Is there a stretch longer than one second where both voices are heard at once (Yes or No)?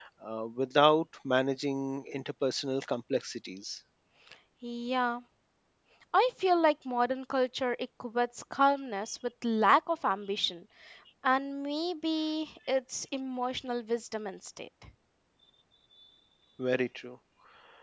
No